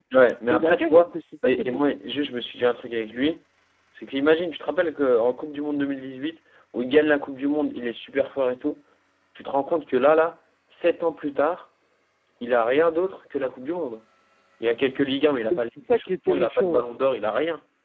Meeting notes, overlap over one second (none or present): present